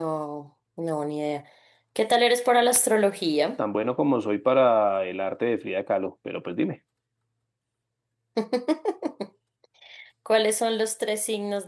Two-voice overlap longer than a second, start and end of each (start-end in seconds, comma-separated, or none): none